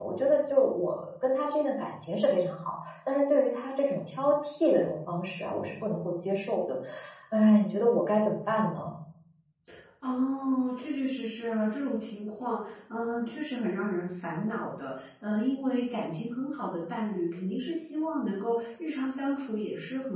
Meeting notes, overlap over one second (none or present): none